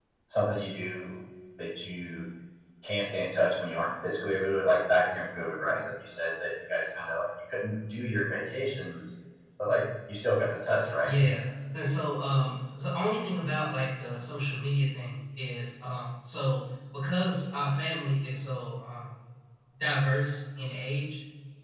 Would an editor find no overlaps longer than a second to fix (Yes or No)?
Yes